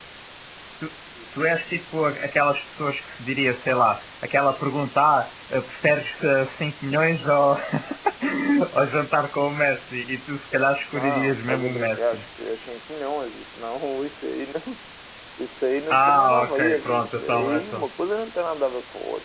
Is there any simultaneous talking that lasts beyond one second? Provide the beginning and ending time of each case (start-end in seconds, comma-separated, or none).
10.9-12.2, 15.9-17.8